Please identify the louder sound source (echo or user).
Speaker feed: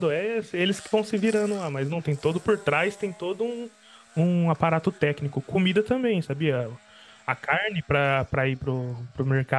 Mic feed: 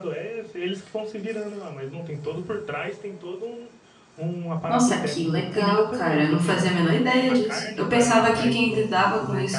user